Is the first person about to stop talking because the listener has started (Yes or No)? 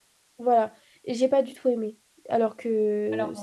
No